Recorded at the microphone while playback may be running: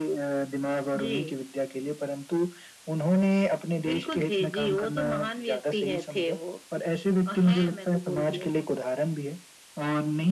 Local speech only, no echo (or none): none